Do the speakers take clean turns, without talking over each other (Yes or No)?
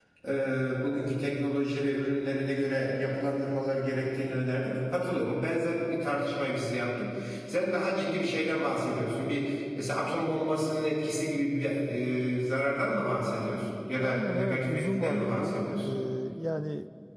No